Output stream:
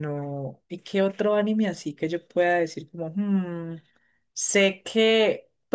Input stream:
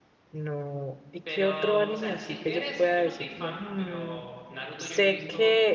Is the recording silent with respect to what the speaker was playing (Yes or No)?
No